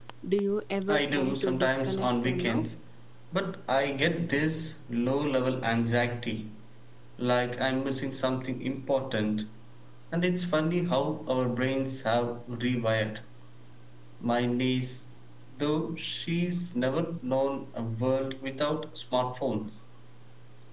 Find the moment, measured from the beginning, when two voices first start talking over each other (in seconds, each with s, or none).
0.9 s